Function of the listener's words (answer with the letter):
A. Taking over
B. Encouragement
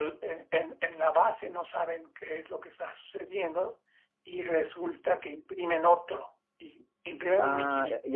A